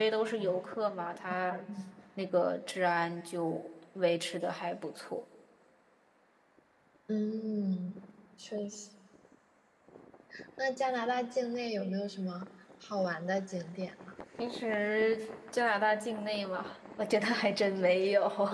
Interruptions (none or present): none